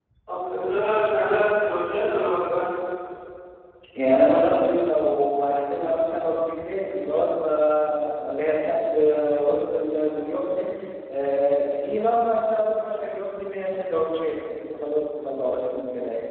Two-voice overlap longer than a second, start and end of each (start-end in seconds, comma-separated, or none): none